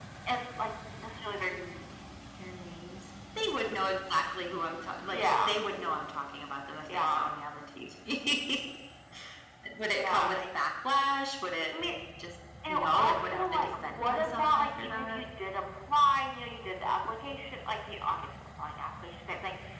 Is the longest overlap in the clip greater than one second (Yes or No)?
Yes